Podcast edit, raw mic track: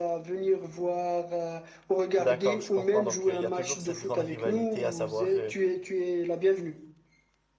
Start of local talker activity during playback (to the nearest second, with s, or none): 2 s